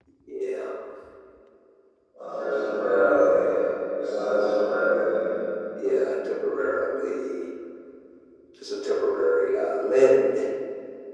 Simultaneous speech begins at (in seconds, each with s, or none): none